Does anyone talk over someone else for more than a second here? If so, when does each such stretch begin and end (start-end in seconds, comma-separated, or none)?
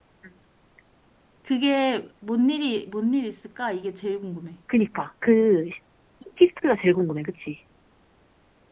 none